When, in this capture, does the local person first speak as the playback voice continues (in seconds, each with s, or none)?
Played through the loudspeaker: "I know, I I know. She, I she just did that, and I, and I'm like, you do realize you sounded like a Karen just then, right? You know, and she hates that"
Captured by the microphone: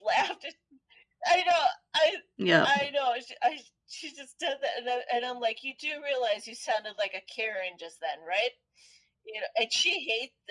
2.4 s